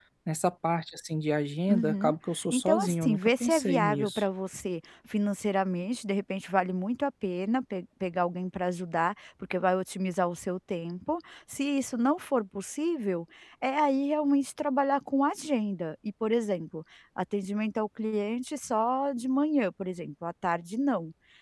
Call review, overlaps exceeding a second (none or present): present